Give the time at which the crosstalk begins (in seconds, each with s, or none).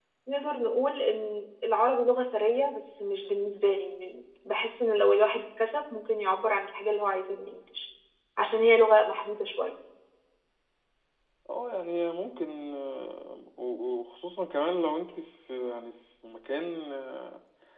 none